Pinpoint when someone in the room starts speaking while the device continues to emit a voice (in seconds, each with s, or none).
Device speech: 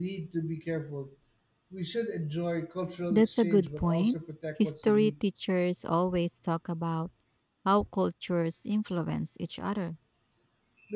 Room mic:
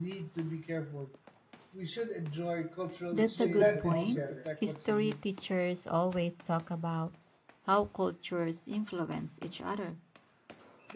3.3 s